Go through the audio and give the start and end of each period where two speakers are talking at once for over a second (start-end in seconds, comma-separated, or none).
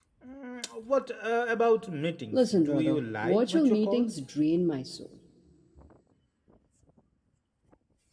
2.3-4.1